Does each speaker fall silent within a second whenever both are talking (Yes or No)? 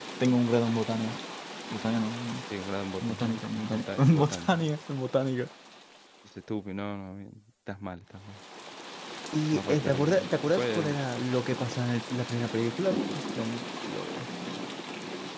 No